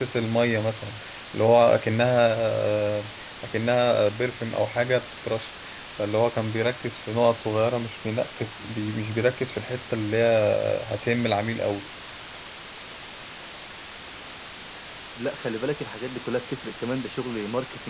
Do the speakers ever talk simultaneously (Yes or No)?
No